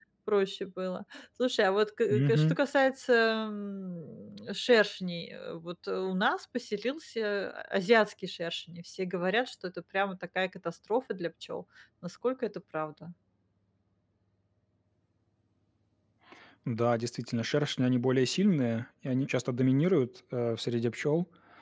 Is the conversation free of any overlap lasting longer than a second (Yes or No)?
Yes